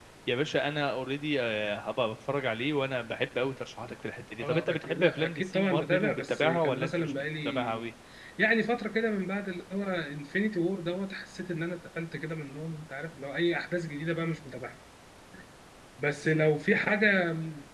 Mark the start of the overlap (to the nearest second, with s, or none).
4 s